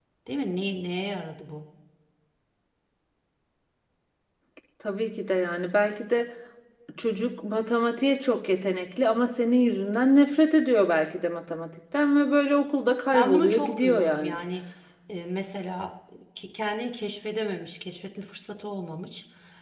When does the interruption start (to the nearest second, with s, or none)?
13 s